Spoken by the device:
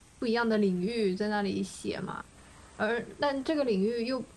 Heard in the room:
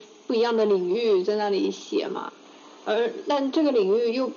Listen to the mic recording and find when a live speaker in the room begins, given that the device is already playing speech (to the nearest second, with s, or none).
none